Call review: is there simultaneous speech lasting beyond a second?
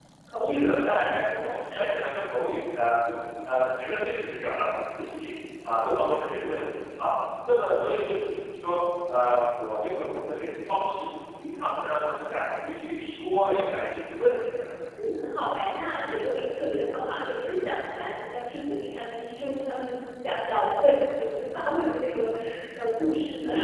No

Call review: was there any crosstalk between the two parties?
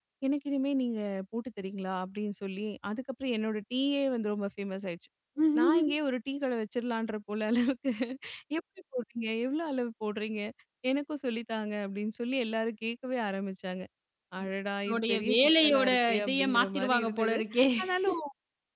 Yes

